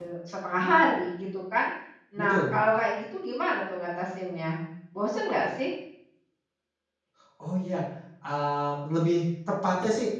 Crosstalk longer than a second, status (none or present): none